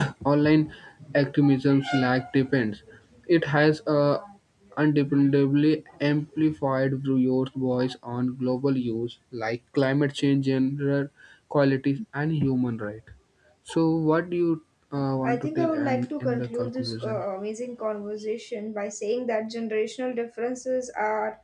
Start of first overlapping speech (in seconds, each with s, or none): 15.2 s